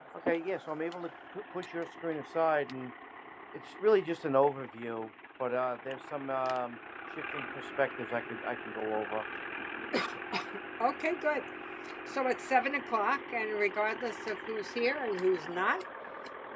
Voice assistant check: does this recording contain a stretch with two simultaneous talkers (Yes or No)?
No